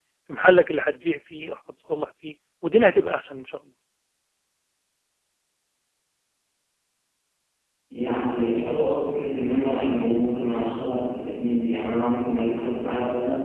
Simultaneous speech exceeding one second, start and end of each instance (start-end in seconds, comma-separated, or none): none